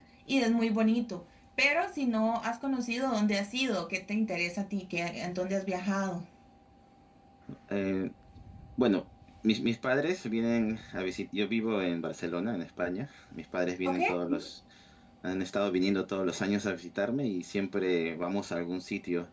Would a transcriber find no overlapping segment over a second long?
Yes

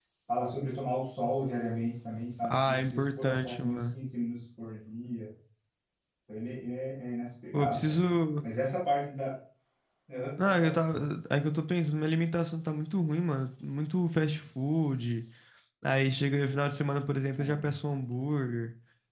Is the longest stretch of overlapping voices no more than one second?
No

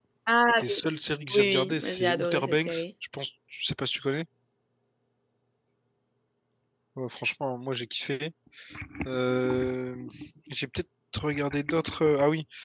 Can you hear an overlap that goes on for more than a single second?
Yes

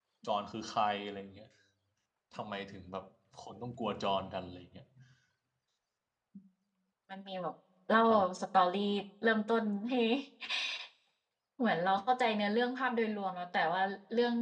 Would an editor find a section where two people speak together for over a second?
No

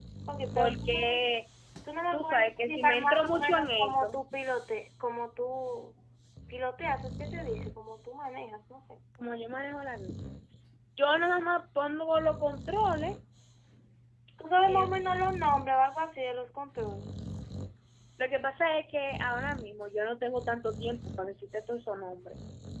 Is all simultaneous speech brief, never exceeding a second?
No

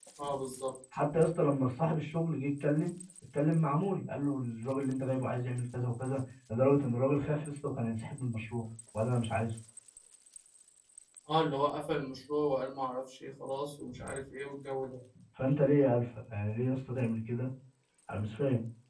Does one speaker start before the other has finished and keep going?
No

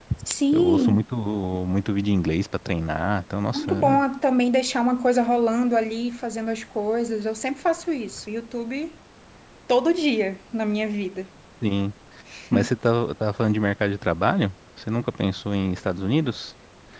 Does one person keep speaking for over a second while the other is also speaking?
No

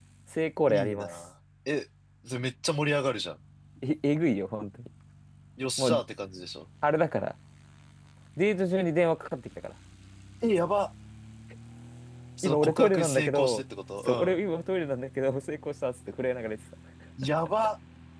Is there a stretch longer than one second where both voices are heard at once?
Yes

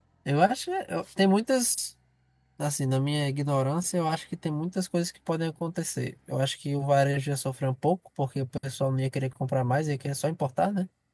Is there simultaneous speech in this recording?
No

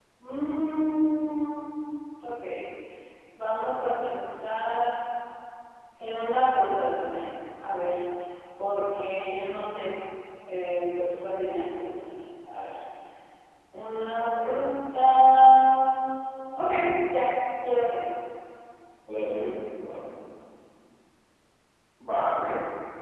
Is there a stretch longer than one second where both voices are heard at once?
No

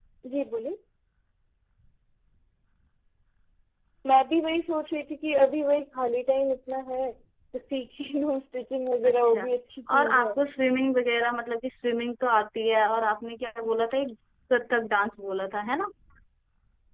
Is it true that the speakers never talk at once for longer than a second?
Yes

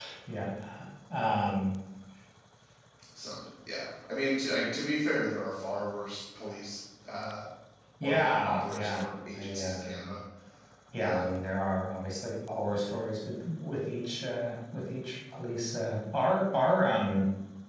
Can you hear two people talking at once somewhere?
Yes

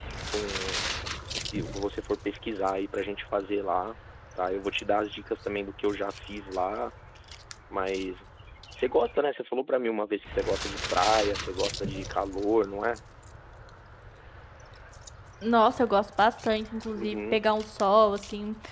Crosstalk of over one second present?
No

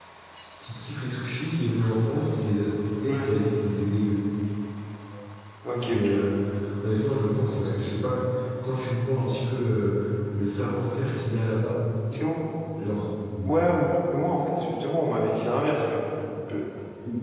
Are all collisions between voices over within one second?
Yes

